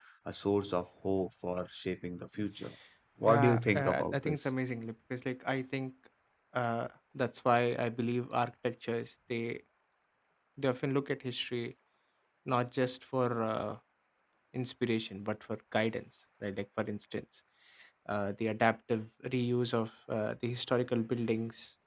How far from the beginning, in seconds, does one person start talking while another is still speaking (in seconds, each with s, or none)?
3.3 s